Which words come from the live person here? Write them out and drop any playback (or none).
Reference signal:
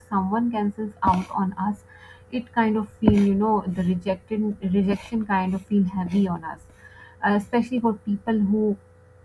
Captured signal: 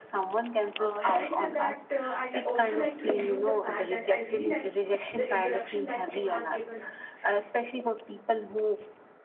uh, having said that, uh, I'd li- also like to include the fact that I really liked the introduction that you have given us.